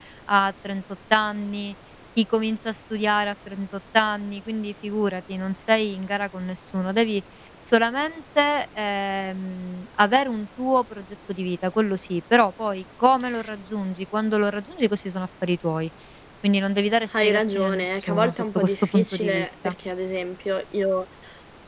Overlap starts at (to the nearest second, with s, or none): 17 s